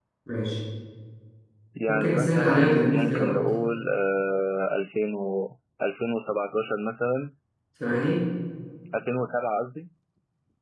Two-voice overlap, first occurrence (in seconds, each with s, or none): 1.9 s